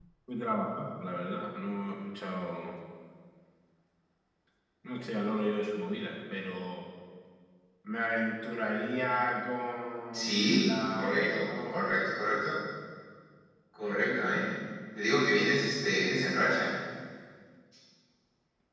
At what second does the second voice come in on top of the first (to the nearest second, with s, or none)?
10 s